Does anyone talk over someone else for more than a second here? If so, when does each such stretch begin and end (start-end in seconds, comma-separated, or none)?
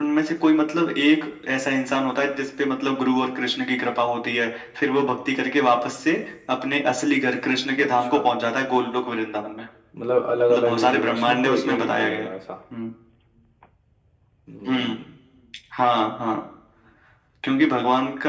10.5-12.3